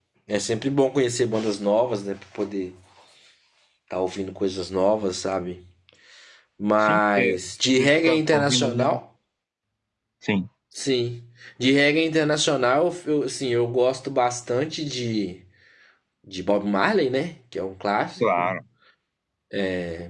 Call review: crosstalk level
present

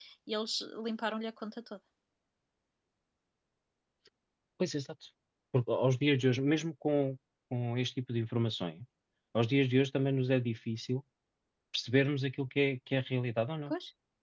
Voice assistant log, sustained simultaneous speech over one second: none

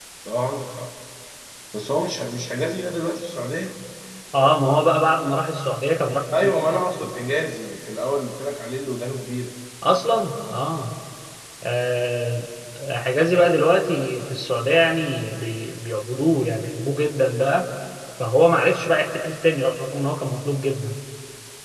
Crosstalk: none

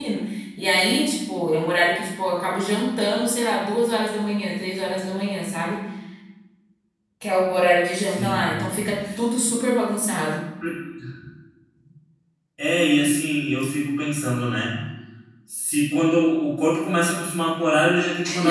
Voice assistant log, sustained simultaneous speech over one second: none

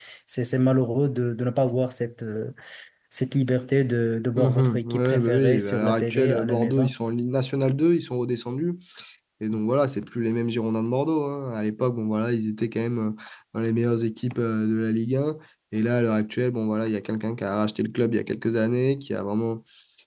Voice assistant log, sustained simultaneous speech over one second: present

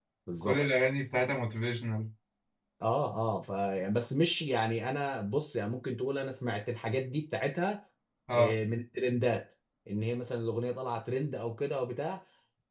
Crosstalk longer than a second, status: none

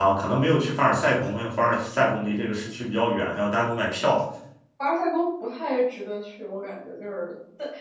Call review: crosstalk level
none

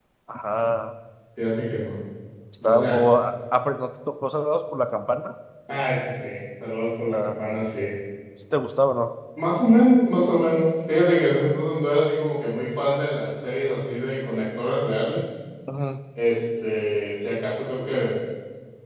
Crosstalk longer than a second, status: none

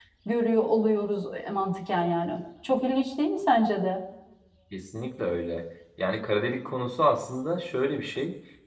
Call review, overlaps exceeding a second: none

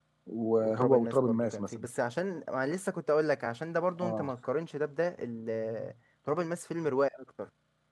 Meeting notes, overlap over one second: present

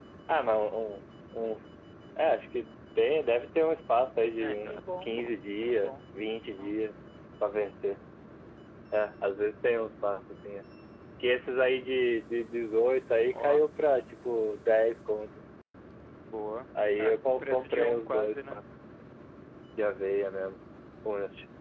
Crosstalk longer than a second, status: present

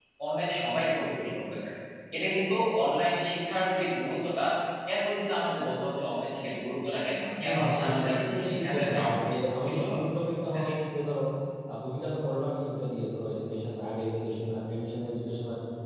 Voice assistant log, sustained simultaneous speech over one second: present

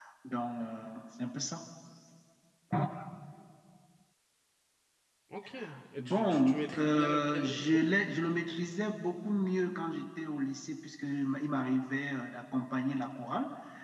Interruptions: present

